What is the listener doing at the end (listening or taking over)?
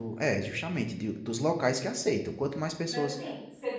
taking over